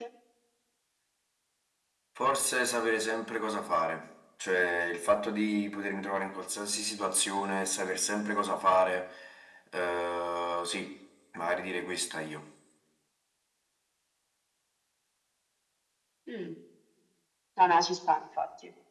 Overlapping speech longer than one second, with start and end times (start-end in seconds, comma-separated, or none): none